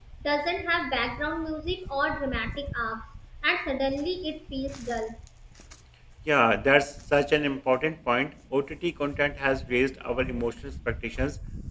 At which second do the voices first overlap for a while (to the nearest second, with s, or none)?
none